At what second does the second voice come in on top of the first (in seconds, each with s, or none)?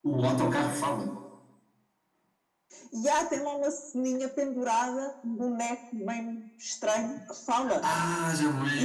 none